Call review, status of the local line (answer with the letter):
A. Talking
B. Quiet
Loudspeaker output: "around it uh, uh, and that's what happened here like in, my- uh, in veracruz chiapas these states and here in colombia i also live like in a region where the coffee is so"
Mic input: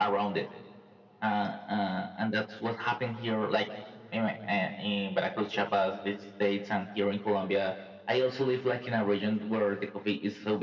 B